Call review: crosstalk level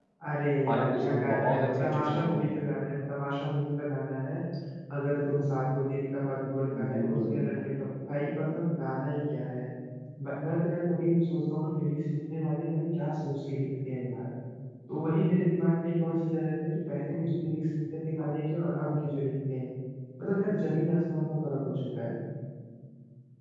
present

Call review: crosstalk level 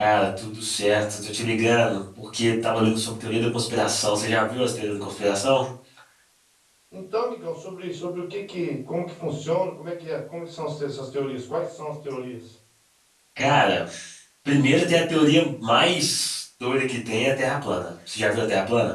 none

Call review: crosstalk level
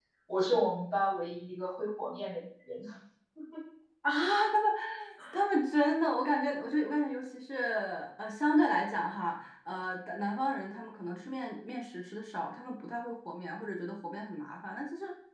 none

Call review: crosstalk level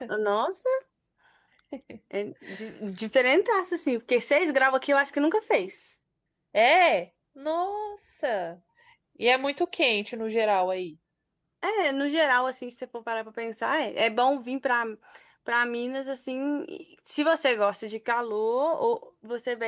none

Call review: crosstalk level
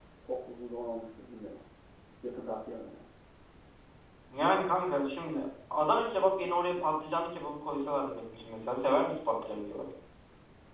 none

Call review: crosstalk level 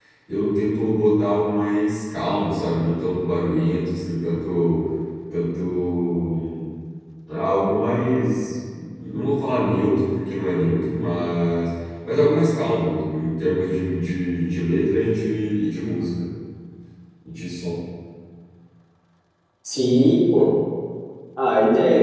none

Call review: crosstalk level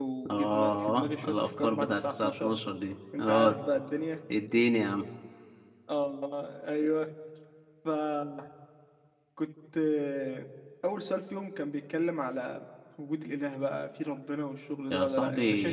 present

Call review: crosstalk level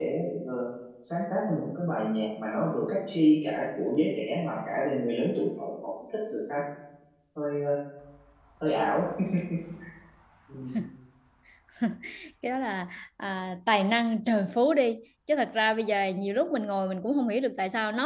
none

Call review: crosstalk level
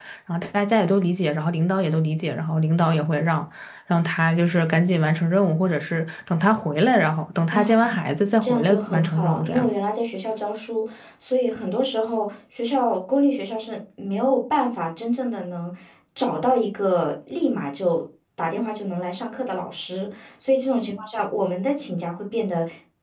present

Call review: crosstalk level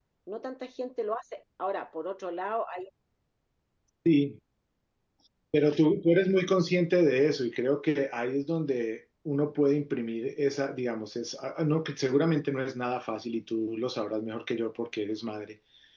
none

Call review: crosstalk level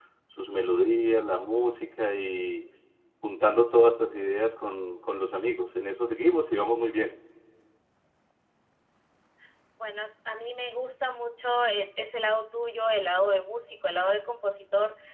none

